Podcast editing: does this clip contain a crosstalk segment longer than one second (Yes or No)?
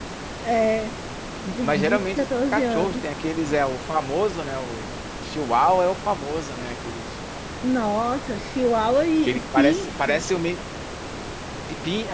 Yes